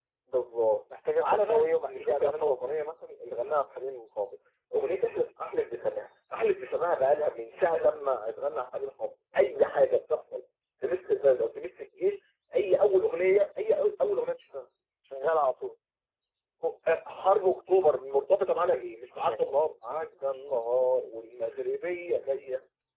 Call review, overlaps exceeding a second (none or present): present